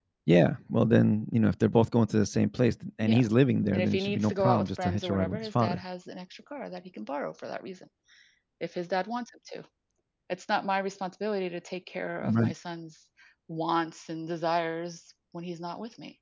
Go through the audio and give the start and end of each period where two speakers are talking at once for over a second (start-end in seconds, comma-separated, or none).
3.7-5.8